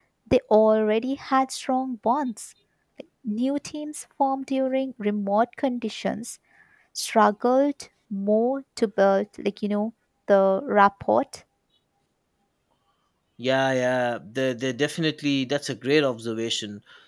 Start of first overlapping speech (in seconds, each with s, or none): none